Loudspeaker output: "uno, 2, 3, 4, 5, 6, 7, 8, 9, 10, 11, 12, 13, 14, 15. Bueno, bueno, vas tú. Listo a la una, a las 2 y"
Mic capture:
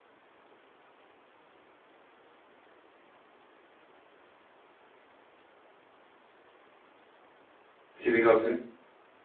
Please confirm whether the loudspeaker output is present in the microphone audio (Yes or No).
No